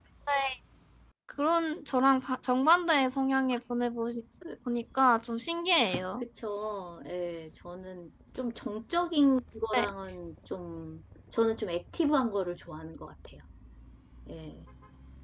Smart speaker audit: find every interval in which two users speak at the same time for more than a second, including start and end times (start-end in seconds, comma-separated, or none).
none